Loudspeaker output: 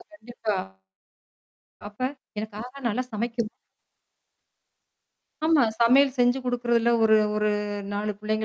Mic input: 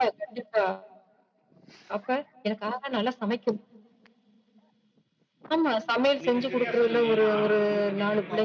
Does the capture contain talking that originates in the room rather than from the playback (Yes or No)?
Yes